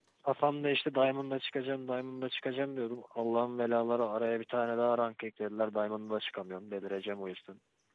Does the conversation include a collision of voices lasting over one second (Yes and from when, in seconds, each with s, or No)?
No